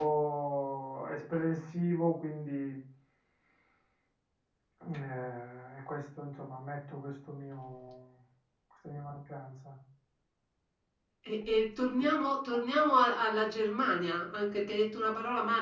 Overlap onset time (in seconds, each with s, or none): none